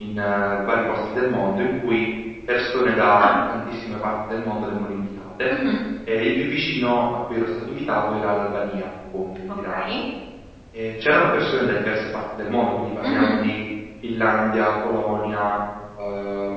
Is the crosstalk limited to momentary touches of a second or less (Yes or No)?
Yes